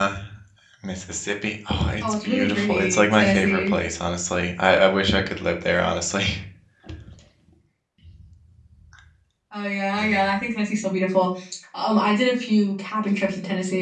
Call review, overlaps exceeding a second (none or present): present